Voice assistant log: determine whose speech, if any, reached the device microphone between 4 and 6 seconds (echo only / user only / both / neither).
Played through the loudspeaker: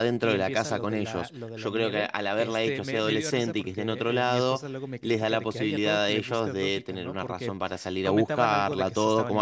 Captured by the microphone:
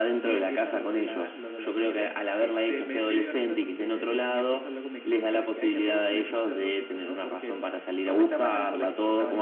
echo only